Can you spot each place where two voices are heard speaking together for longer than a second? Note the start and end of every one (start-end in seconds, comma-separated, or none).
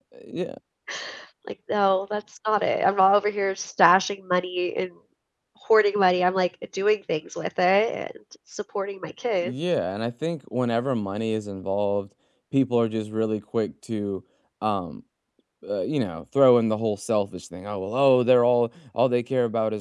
none